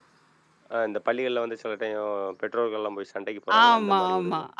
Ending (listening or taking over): taking over